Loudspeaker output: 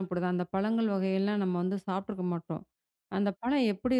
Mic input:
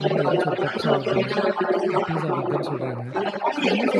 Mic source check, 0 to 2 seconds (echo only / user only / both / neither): both